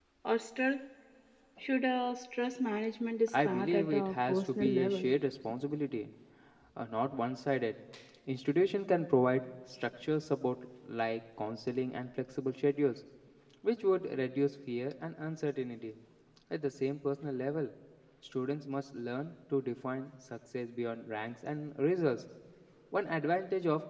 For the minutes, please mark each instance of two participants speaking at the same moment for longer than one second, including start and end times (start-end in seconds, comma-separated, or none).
3.3-5.1